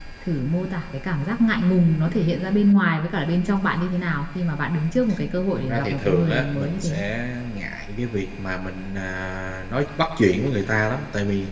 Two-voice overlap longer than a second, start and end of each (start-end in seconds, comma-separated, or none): 5.6-7.0